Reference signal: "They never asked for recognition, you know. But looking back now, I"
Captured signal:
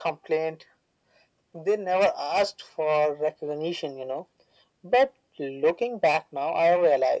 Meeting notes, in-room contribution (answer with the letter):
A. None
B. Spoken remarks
A